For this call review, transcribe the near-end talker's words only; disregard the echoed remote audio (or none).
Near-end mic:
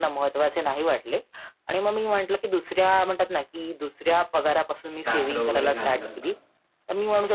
साकडं वगैरे घालतात का?